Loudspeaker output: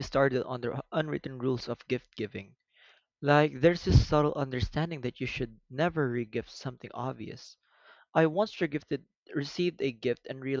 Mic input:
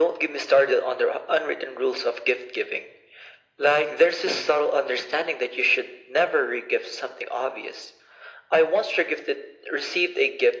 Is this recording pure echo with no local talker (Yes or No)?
Yes